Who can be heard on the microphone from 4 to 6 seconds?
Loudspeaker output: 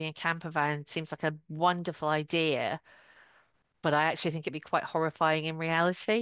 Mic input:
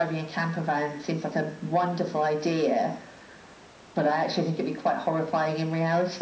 echo only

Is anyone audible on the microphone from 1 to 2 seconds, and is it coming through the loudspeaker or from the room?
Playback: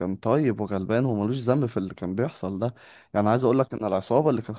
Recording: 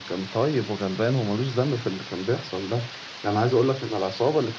echo only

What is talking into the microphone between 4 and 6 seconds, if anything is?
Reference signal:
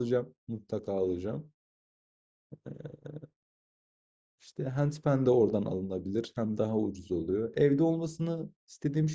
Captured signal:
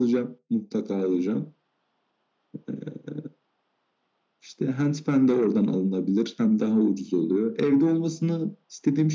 echo only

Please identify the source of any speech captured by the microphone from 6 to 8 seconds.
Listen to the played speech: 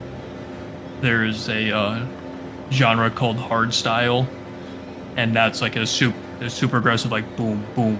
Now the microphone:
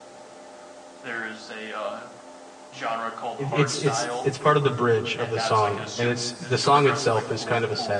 both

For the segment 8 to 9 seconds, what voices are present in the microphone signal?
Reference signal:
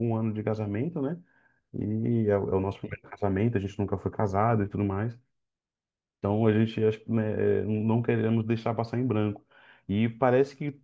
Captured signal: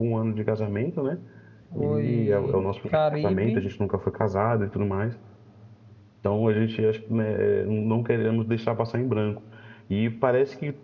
echo only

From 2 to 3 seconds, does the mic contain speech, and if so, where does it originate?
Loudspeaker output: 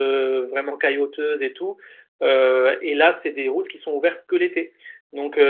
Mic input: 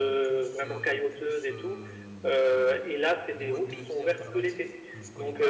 both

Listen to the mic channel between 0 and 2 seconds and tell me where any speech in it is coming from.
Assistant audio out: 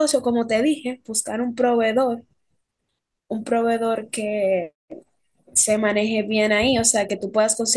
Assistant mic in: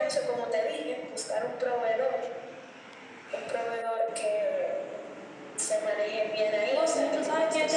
echo only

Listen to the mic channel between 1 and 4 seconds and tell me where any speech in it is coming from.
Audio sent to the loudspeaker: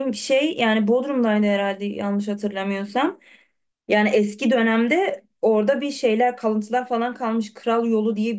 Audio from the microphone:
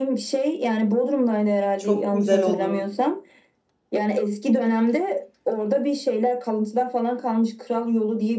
both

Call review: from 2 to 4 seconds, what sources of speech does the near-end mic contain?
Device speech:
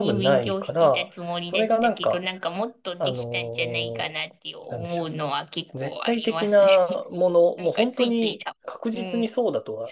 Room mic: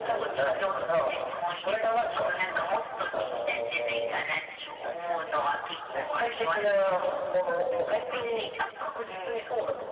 echo only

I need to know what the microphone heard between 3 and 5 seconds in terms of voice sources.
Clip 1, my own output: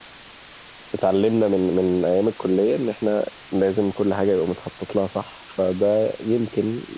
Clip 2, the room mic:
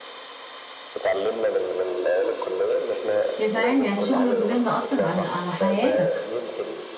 both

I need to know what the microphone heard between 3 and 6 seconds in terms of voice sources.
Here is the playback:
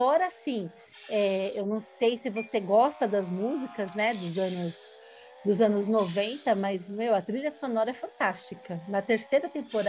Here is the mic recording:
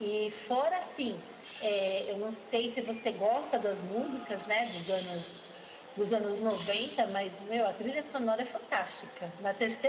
echo only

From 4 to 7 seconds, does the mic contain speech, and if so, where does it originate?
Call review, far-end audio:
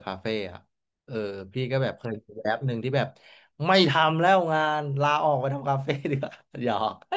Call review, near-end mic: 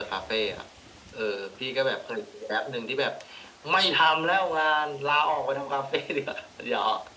echo only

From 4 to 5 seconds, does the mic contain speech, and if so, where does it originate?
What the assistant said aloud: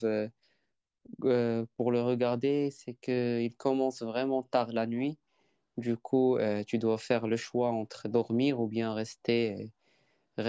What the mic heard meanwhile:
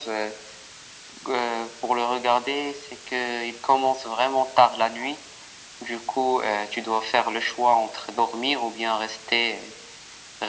echo only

